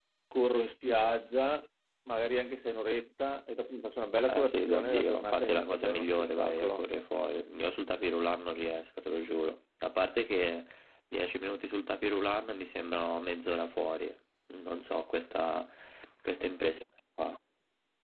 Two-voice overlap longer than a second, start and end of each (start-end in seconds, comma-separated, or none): 4.3-6.8